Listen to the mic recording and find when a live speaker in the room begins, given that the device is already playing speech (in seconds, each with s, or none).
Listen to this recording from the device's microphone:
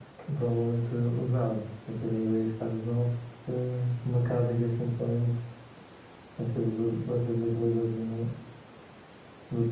none